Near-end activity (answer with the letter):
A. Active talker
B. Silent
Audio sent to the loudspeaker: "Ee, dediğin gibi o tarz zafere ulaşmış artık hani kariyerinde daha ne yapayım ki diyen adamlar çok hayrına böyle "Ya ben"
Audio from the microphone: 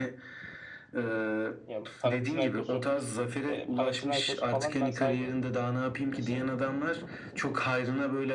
A